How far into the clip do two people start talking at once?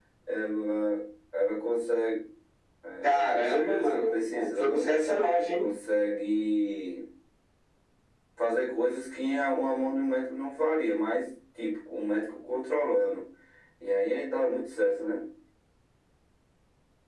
3 s

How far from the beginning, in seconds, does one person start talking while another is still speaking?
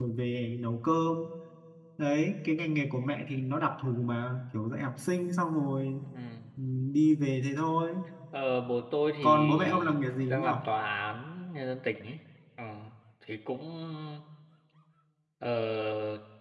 9 s

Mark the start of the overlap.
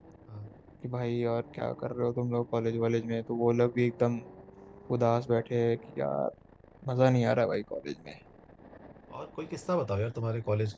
none

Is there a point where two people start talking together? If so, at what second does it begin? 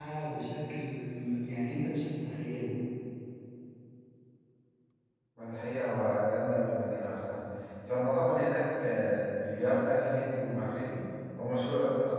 none

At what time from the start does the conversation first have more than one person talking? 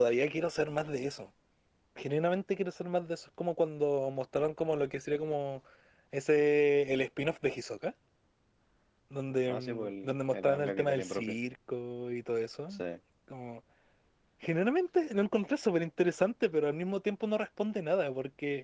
9 s

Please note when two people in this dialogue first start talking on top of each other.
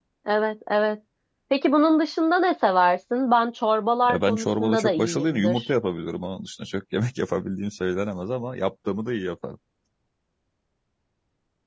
4 s

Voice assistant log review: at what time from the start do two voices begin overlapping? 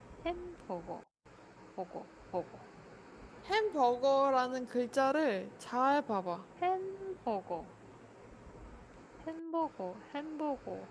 none

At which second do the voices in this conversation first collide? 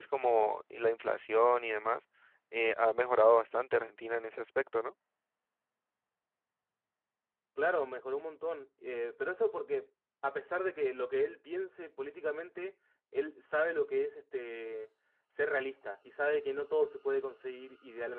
none

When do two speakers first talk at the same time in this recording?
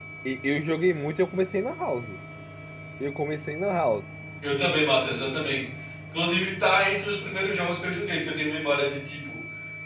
none

